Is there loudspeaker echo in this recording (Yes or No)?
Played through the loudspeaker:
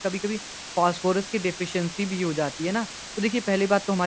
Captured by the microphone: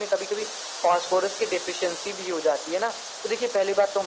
Yes